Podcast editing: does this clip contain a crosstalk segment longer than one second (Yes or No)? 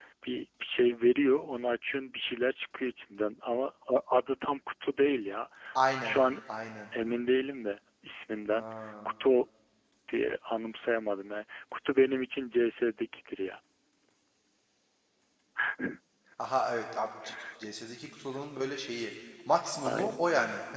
No